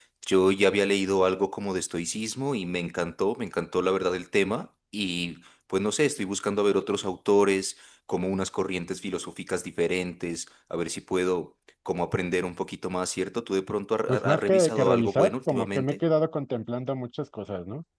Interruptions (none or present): present